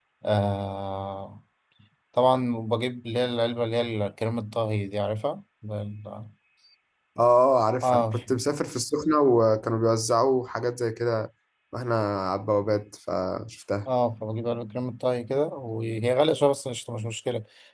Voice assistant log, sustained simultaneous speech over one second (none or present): none